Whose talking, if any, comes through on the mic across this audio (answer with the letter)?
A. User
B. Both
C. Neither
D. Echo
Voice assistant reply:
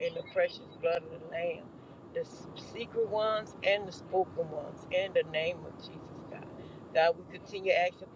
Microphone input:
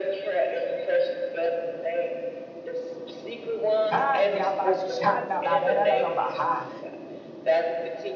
B